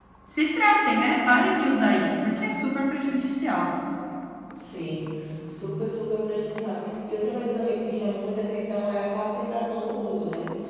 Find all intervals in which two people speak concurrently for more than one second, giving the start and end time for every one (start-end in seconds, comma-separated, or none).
none